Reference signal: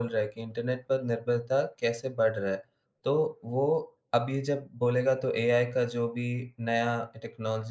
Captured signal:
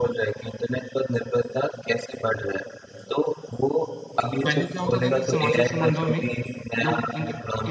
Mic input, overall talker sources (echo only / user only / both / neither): both